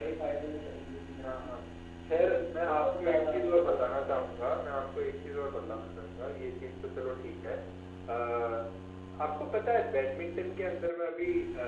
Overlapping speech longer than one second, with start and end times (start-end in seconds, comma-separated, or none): 2.1-4.1